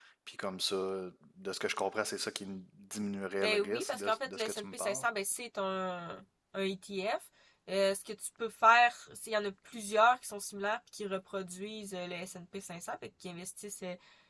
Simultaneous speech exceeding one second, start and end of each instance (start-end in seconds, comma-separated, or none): 3.4-5.0